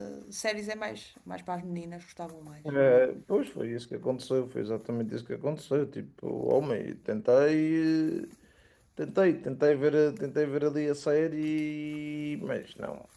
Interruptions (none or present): none